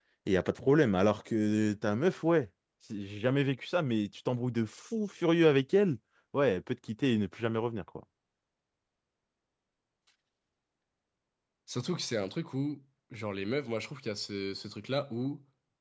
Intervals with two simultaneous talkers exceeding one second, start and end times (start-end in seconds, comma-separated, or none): none